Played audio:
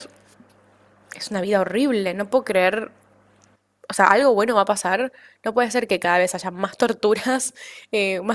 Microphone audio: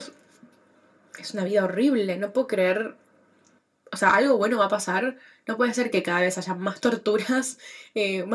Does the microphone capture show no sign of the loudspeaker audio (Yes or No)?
No